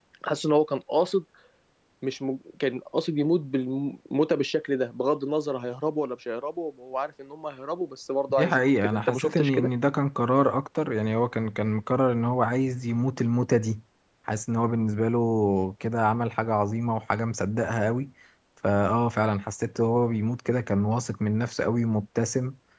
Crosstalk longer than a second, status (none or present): present